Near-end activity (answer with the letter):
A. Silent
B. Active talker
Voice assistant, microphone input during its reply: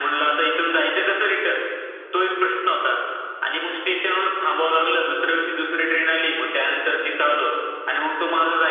A